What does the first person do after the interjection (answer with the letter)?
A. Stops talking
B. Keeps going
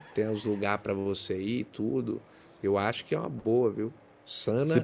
B